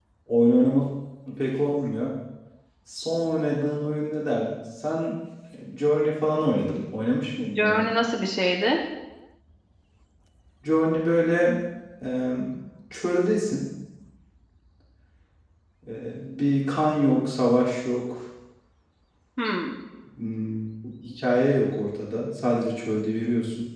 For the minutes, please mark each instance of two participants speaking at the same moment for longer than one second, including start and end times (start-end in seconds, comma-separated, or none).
none